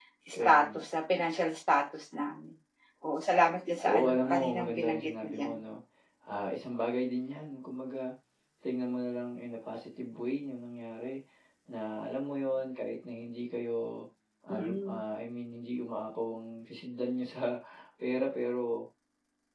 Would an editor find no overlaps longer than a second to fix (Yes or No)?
No